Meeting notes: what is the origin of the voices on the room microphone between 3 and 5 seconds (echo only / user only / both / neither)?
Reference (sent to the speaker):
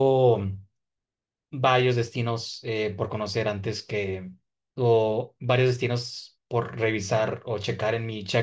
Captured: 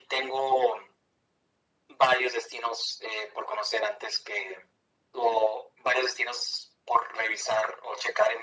echo only